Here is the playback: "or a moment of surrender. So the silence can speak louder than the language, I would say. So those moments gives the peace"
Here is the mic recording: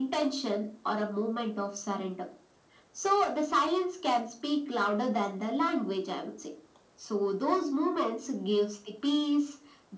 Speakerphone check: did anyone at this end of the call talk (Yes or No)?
No